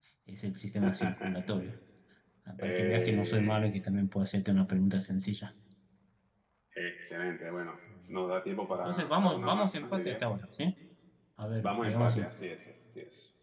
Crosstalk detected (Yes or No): Yes